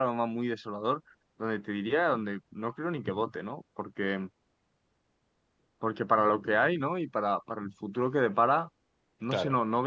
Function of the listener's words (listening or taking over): listening